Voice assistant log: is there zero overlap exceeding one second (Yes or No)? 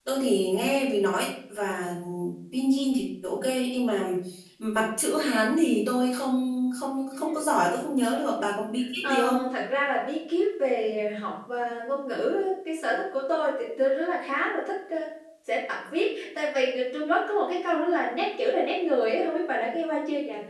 Yes